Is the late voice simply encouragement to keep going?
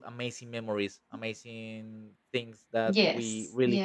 No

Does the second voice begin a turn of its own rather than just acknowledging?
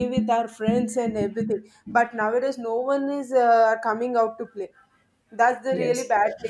No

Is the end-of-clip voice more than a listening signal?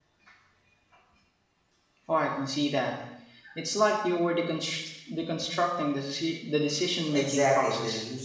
Yes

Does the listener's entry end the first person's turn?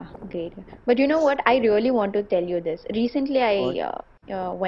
No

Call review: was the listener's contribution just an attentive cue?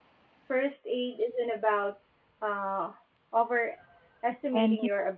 Yes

